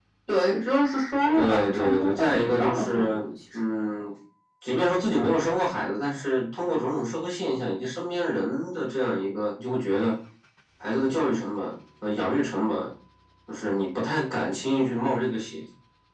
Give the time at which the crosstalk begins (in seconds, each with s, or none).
1.3 s